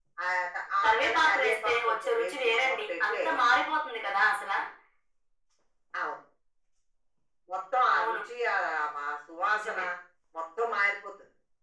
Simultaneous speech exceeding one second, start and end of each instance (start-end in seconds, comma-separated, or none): 0.8-3.2